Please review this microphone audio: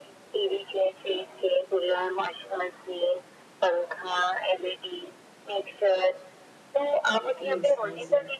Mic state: both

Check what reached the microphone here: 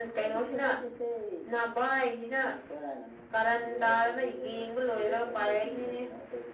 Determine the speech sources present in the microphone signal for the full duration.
echo only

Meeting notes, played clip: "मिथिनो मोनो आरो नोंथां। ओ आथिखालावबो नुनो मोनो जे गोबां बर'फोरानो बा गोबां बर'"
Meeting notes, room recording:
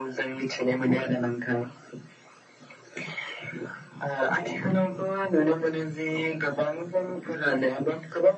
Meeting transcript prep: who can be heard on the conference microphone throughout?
echo only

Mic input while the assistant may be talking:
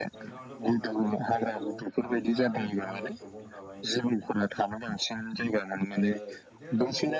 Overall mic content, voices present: both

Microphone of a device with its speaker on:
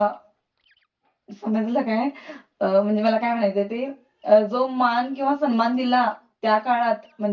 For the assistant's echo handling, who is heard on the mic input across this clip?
user only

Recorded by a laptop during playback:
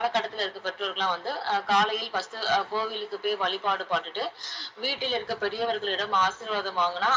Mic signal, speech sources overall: echo only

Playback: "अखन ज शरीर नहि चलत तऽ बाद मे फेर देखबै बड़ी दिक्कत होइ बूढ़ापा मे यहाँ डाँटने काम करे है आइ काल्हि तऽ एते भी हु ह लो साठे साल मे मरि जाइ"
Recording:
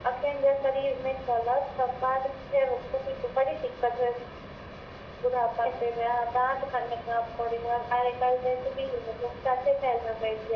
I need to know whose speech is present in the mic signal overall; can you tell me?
echo only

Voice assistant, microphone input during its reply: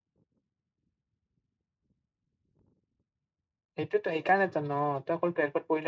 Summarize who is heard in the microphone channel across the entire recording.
user only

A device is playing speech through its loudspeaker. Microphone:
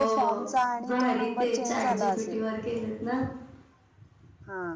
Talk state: both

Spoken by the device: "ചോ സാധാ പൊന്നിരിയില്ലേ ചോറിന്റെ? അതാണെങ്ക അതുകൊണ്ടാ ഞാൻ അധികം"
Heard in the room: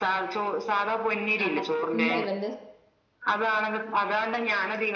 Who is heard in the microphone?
both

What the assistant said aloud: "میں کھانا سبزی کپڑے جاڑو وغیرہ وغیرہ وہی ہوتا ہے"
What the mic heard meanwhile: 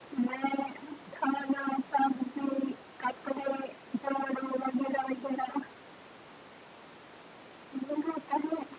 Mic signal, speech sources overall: echo only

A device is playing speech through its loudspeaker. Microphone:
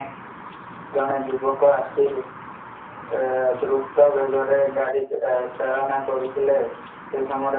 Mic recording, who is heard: echo only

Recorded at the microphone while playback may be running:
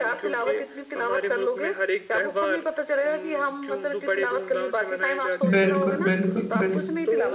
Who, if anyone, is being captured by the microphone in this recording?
both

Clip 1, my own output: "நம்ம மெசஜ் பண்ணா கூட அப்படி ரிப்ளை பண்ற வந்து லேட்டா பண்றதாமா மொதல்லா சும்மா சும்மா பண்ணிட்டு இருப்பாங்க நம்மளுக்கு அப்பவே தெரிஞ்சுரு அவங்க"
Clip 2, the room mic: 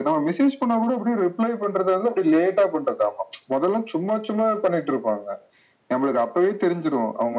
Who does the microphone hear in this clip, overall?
echo only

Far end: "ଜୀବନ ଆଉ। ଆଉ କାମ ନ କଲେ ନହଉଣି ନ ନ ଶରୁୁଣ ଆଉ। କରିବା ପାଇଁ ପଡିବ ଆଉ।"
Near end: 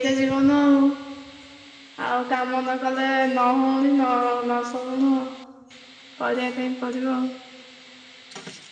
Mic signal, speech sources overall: echo only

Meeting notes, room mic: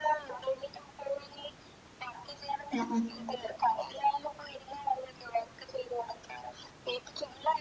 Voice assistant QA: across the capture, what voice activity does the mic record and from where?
both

